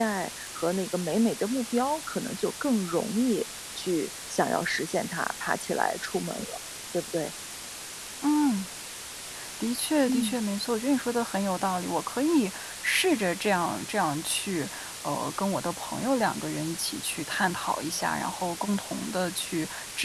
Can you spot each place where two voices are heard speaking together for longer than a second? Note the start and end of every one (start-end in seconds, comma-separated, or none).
none